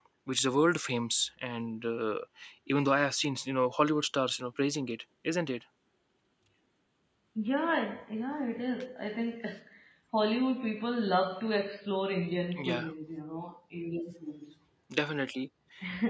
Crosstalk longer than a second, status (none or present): none